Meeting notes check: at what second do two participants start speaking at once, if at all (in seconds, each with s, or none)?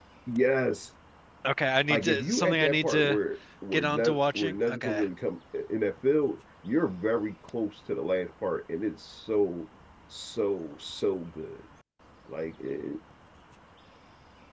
1.8 s